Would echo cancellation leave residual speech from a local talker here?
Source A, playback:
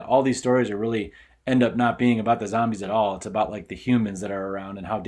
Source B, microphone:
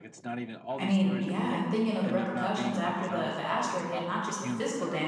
Yes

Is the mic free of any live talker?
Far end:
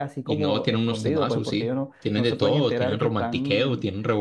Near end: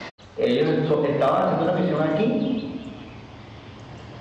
No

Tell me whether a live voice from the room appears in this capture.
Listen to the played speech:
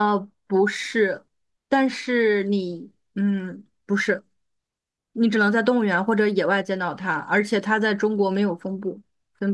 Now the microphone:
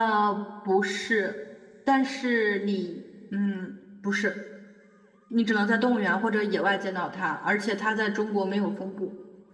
No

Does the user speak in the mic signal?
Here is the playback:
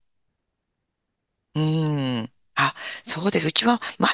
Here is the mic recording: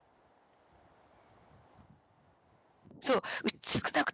Yes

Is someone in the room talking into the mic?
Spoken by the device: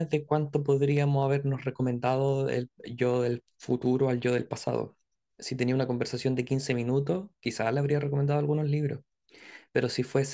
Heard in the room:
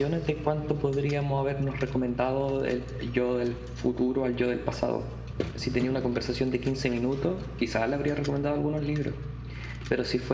No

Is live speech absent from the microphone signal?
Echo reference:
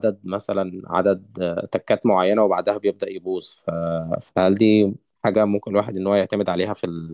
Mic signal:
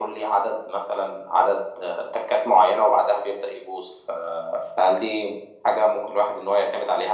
Yes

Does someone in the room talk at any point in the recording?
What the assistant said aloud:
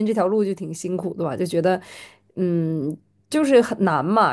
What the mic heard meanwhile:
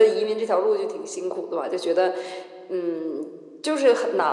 No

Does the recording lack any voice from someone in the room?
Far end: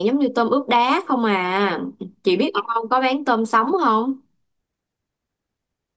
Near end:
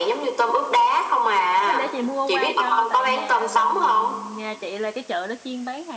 No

